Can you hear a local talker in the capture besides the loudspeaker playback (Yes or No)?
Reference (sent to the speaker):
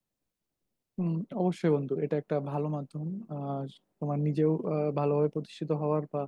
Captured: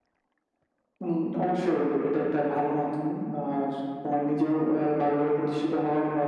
No